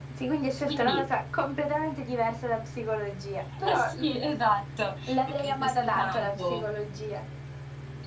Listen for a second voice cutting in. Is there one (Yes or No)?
Yes